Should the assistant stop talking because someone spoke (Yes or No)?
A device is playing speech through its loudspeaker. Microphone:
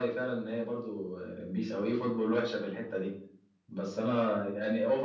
No